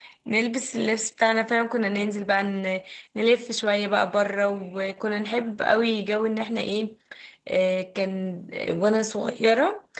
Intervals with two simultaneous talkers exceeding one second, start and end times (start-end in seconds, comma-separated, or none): none